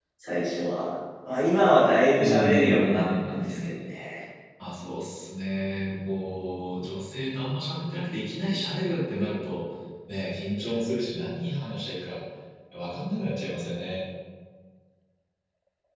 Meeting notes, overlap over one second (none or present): present